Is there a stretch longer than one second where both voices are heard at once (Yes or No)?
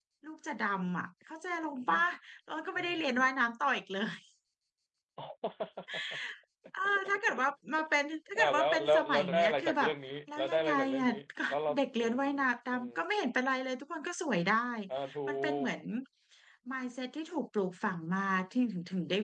Yes